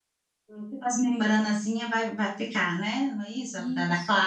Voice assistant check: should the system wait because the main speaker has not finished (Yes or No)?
No